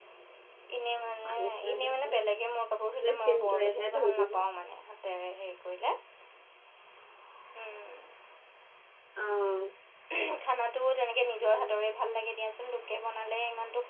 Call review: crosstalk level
present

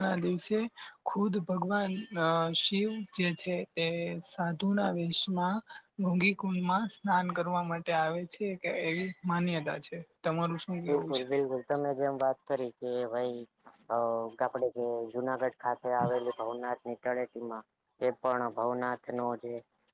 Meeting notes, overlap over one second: none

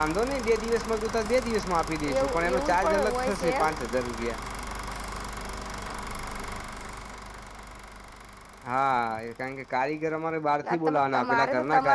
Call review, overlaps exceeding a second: present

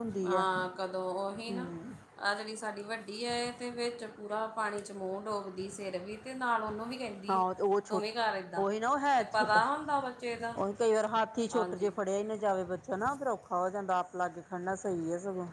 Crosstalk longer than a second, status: none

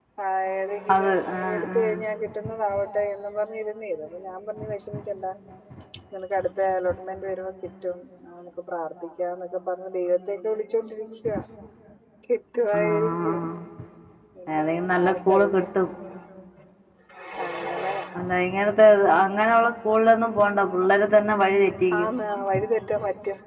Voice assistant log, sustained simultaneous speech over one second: present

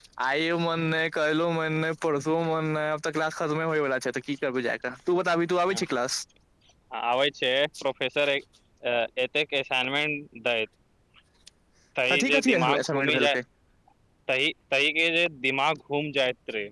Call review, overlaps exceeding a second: present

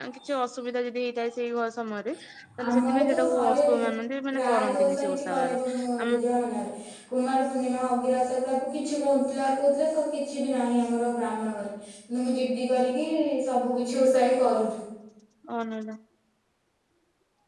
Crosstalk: present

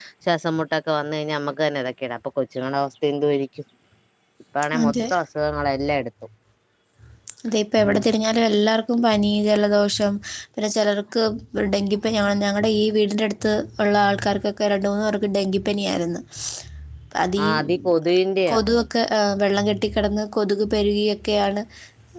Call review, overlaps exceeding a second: none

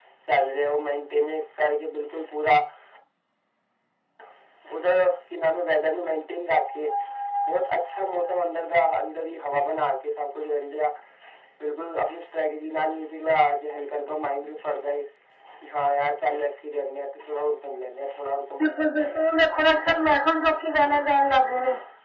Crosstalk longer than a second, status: none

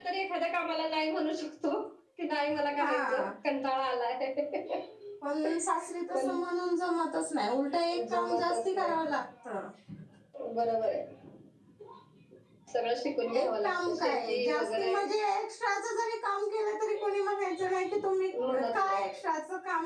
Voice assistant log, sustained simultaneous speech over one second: present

